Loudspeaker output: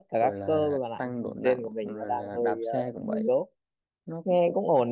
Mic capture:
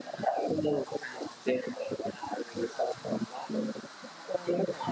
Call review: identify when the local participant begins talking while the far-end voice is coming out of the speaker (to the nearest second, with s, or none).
none